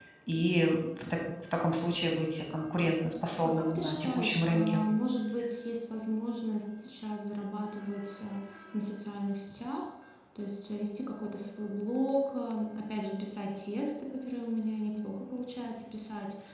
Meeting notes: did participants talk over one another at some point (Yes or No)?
Yes